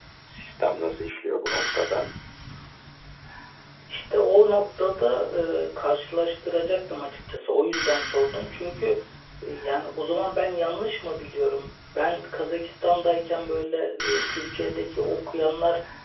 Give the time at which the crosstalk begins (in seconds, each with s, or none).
none